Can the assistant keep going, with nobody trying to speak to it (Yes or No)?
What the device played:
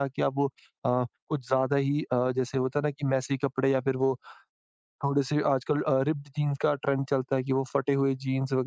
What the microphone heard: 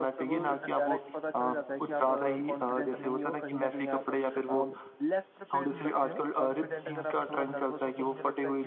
No